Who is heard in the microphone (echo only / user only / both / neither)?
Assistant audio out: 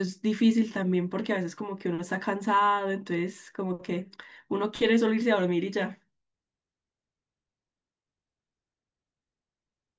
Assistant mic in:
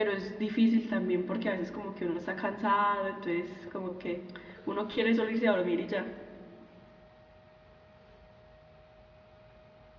echo only